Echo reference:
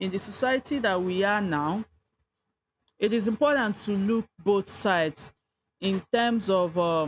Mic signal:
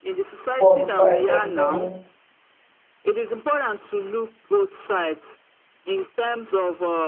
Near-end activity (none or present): present